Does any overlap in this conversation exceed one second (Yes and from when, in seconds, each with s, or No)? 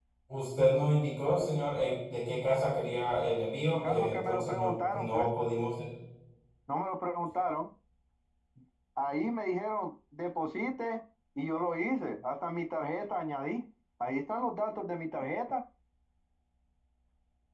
Yes, from 3.8 s